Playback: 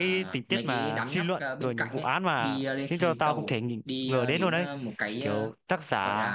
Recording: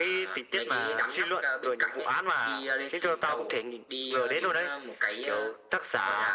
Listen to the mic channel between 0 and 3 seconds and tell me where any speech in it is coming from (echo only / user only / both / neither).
echo only